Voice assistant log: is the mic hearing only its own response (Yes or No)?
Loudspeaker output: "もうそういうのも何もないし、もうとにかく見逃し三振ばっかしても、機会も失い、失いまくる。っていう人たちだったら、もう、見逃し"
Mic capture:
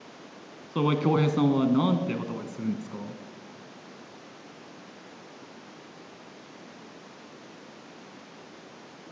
No